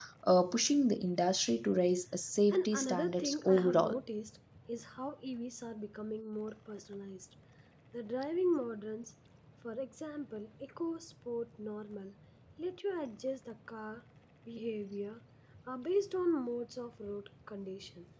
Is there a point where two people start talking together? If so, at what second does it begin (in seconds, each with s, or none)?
2.5 s